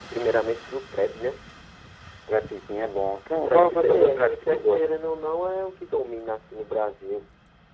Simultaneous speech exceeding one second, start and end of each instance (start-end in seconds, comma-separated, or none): 3.3-4.8